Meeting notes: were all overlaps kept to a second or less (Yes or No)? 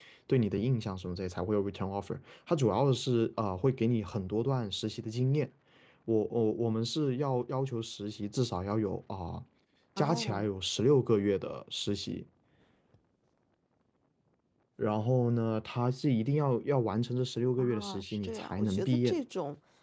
No